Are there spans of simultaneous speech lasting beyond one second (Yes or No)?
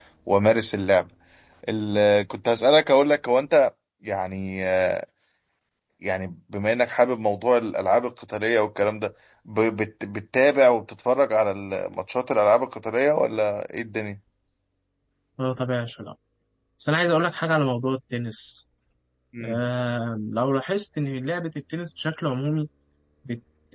No